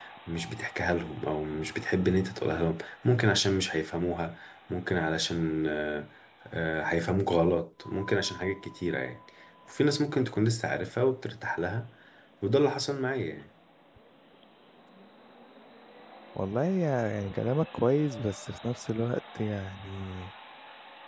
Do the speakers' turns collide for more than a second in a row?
No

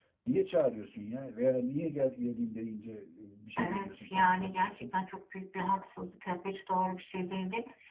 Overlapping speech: Yes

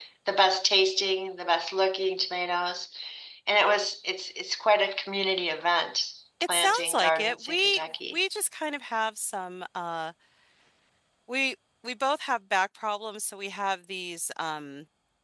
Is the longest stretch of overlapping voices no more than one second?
No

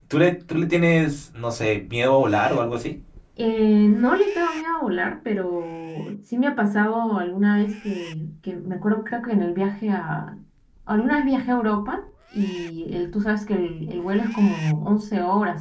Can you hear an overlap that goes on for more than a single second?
No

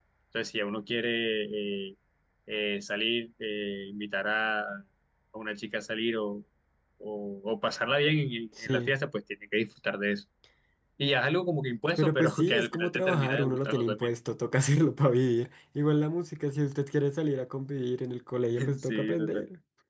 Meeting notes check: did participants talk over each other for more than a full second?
Yes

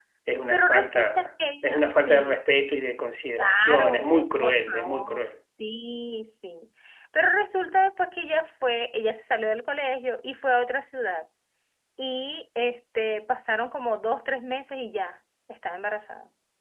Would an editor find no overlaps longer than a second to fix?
No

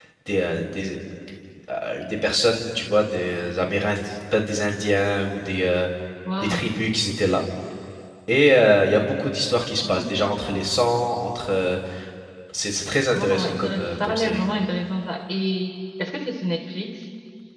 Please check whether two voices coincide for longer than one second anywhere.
Yes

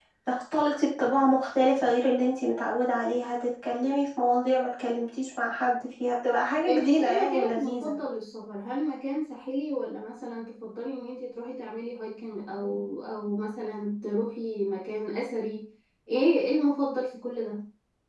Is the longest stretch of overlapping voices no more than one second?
No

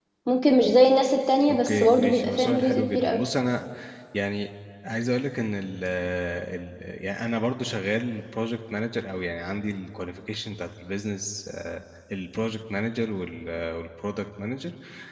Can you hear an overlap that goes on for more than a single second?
Yes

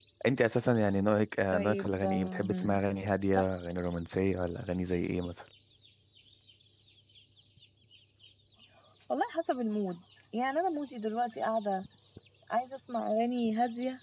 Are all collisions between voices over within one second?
No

